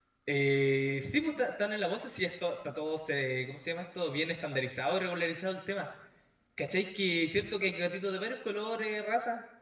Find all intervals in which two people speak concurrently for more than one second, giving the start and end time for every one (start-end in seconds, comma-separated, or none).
none